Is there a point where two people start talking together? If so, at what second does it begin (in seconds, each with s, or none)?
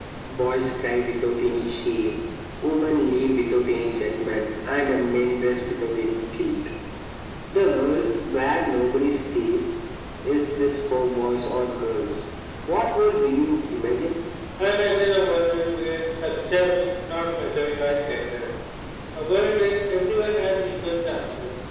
none